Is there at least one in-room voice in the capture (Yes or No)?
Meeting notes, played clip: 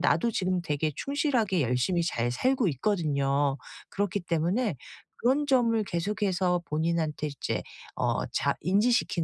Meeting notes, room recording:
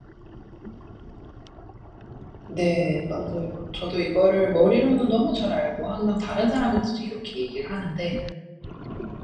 Yes